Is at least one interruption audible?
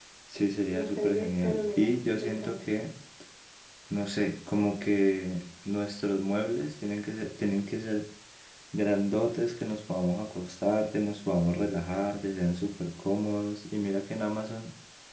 Yes, from 0.7 s

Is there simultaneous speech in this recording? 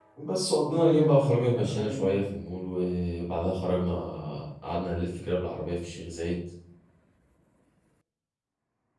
Yes, from 0.6 s

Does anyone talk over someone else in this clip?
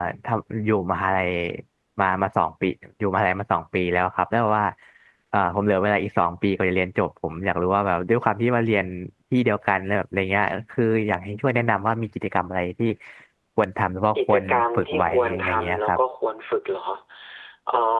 Yes, from 14.2 s

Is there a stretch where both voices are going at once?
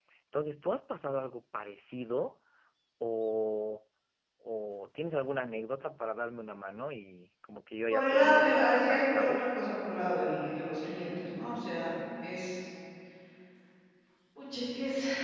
Yes, from 7.9 s

